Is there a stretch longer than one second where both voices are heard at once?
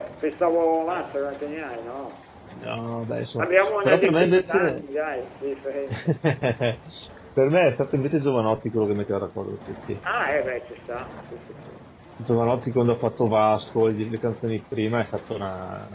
Yes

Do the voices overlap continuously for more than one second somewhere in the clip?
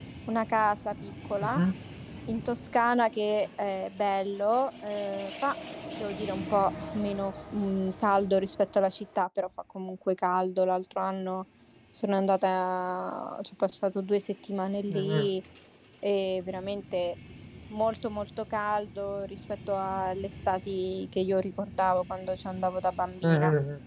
No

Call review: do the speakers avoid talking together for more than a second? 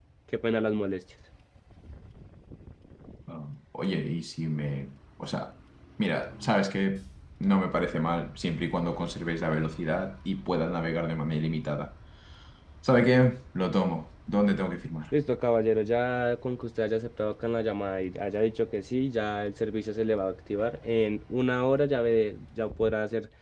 Yes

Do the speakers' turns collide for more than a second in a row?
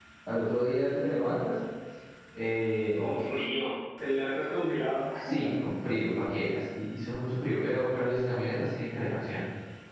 No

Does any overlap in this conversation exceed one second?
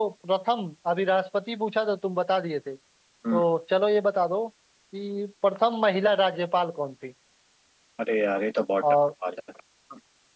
No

